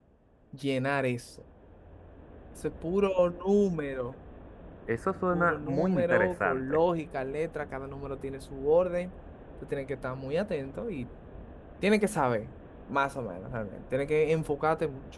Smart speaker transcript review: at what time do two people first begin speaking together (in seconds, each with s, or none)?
5.3 s